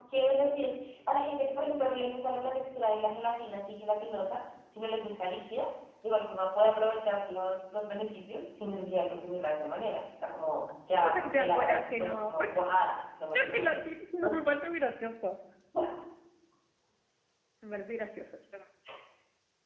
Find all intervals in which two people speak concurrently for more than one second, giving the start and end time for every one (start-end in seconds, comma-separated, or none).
10.9-12.5